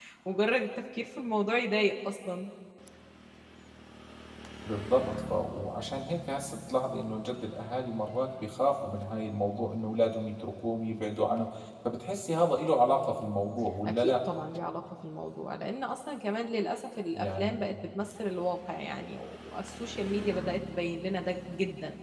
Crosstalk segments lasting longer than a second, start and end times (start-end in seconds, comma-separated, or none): none